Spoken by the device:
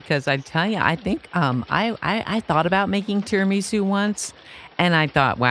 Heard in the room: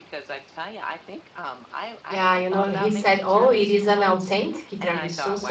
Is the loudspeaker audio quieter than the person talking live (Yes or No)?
Yes